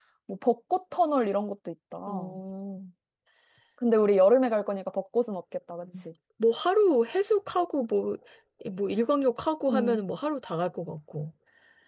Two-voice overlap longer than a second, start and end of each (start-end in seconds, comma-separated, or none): none